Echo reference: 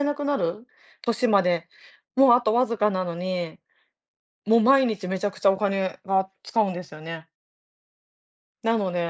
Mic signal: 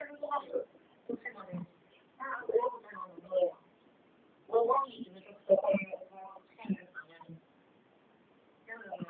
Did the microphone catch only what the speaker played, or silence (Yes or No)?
Yes